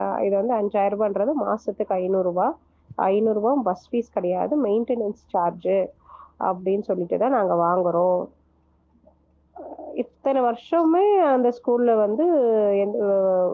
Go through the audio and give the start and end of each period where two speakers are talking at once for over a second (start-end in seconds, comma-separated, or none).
none